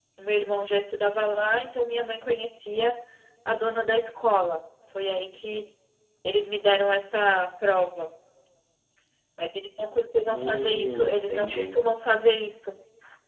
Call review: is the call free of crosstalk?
No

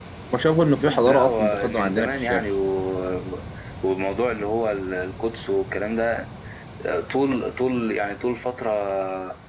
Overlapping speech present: Yes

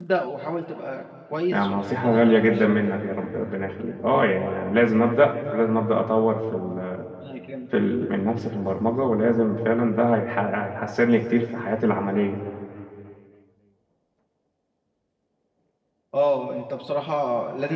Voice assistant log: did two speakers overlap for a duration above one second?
Yes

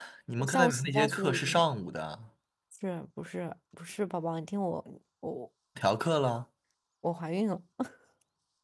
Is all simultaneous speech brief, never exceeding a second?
No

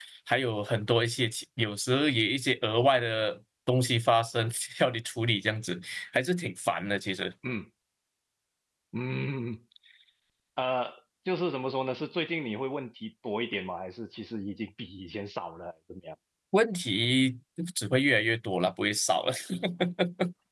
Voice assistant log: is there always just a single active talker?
Yes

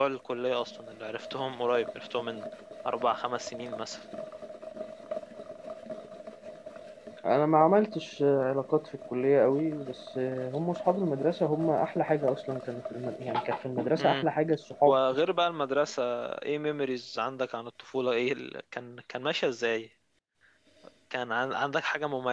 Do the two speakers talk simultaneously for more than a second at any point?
No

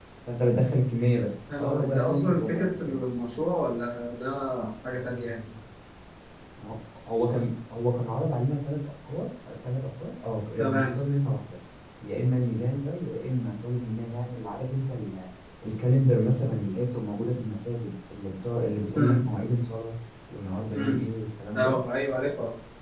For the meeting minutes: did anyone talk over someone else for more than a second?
Yes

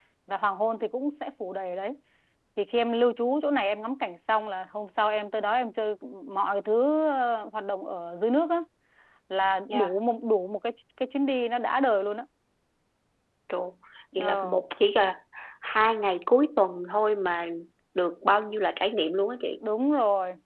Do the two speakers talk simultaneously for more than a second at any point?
No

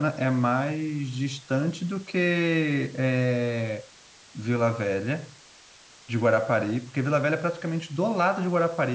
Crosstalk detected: No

